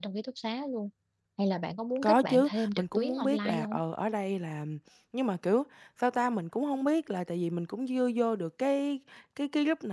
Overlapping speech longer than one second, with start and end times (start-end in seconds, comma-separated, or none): 2.0-3.8